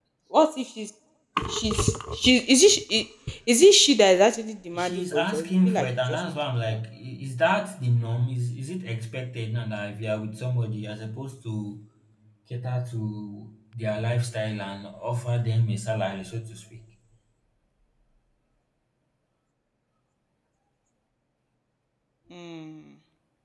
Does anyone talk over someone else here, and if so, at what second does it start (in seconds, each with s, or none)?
4.7 s